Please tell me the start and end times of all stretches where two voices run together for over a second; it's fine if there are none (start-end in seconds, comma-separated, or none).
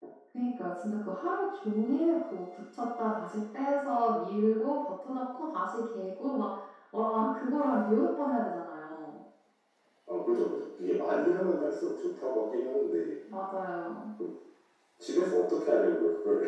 none